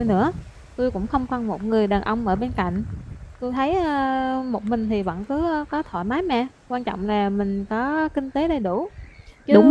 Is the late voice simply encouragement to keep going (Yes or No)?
No